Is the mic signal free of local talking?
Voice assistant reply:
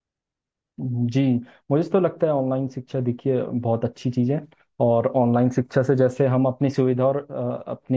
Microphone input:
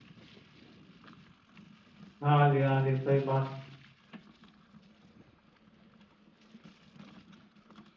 No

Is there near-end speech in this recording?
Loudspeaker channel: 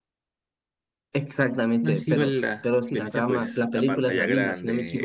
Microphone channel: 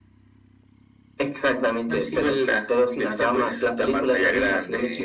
No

